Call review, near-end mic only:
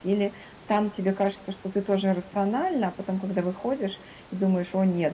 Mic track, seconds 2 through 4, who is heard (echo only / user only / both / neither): user only